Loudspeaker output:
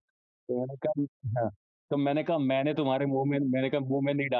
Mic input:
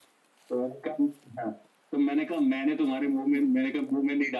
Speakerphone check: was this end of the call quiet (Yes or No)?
Yes